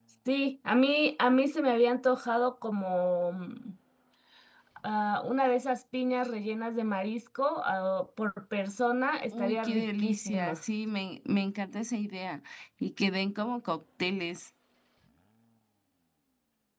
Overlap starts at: 9 s

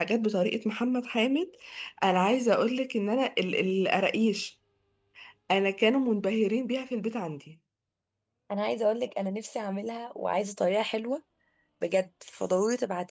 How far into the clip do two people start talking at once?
none

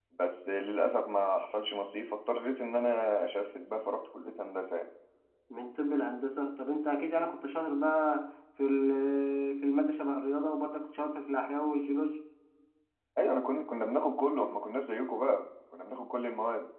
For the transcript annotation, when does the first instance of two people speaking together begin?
none

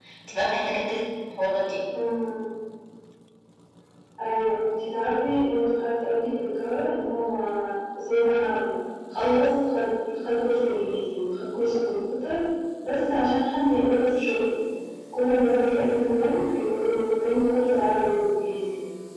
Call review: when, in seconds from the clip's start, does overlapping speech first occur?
none

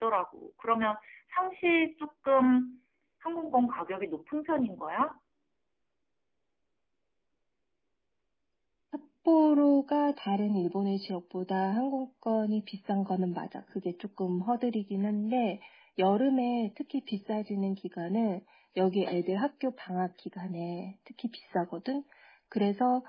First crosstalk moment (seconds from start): none

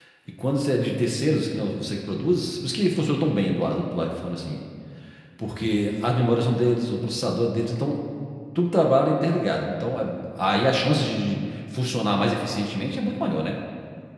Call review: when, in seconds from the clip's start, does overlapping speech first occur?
none

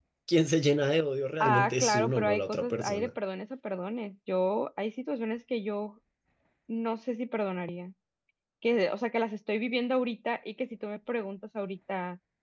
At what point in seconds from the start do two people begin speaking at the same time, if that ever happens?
1 s

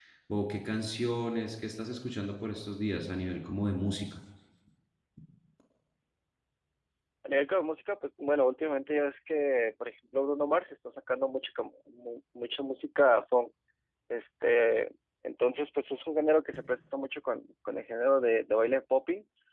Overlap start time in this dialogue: none

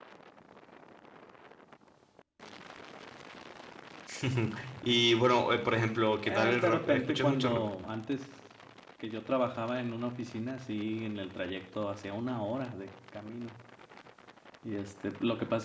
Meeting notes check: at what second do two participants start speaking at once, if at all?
6 s

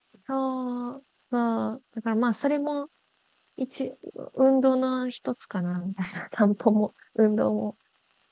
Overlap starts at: none

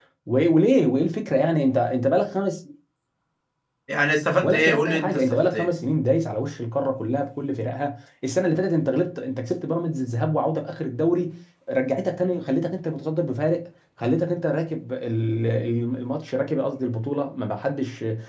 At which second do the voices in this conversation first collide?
4 s

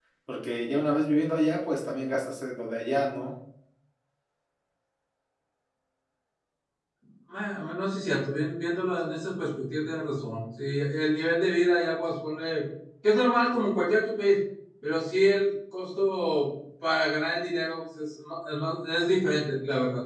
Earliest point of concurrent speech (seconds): none

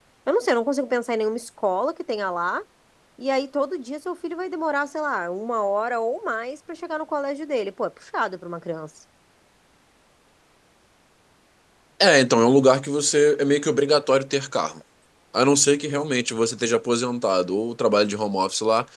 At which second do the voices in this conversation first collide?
none

